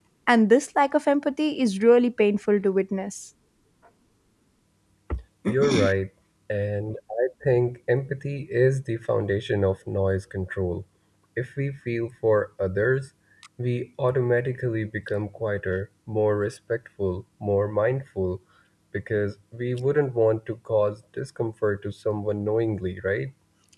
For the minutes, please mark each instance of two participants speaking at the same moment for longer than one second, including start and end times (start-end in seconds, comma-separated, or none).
none